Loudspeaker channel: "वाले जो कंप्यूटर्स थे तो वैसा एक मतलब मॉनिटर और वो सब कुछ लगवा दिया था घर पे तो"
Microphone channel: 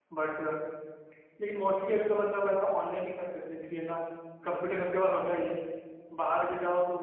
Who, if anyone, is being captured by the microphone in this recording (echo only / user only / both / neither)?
user only